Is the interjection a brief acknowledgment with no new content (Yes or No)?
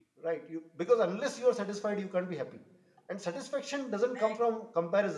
Yes